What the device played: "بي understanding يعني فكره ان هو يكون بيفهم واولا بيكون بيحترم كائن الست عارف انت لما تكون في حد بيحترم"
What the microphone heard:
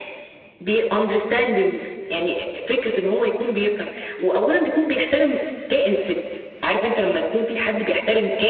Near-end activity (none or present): none